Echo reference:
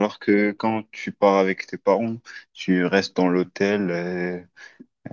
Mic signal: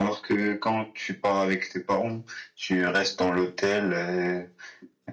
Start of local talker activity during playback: none

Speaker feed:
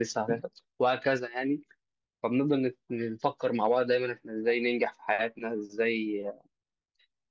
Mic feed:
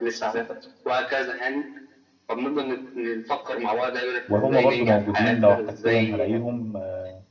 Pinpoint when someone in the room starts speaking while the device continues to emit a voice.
4.3 s

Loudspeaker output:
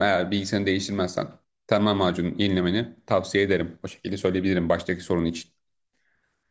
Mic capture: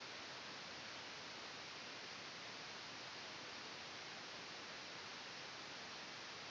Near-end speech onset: none

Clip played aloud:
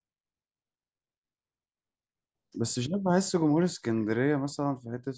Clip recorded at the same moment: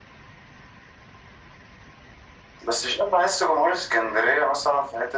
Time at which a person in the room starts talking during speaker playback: none

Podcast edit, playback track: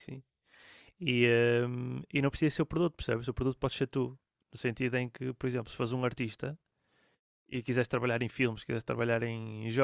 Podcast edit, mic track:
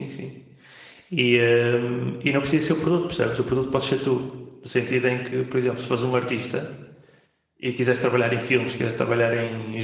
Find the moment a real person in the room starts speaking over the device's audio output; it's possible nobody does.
none

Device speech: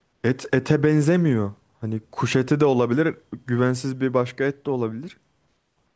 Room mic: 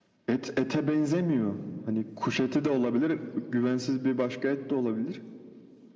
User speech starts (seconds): none

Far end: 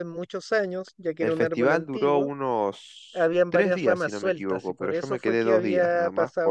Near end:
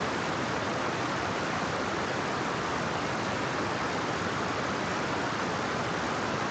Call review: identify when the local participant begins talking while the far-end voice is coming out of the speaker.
none

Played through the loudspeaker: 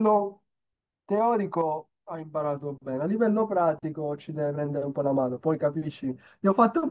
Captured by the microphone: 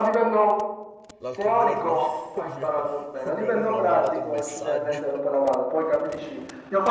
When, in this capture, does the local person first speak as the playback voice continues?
1.2 s

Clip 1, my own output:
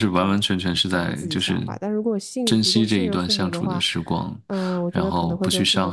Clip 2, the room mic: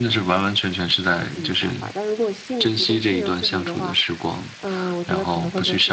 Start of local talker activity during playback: none

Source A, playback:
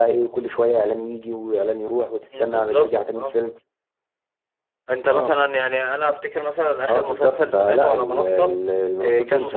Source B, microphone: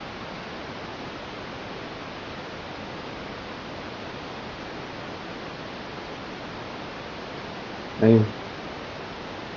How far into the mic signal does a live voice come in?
8.0 s

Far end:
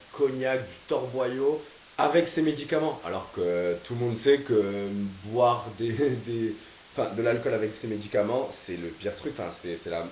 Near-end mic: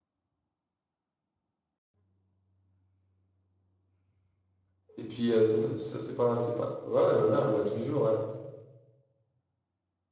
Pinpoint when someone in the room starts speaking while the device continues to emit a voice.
5.0 s

